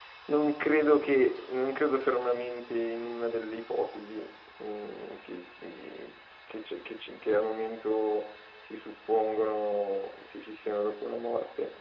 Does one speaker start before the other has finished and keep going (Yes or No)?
No